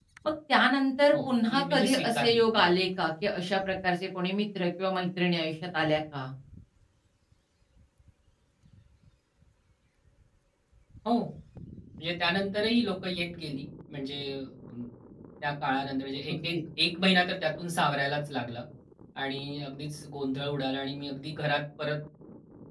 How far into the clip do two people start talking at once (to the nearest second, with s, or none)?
1 s